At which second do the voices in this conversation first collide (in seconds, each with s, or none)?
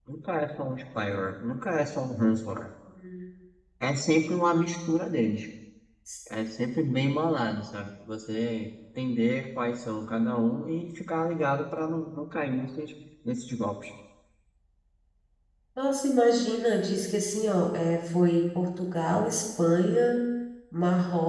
none